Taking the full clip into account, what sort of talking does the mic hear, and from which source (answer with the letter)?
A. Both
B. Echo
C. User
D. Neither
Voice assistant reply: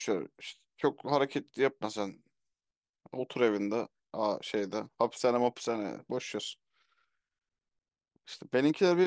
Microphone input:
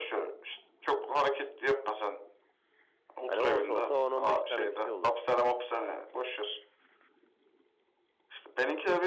A